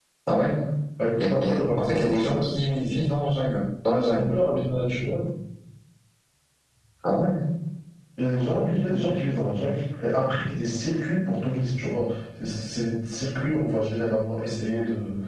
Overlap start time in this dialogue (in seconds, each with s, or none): 1.2 s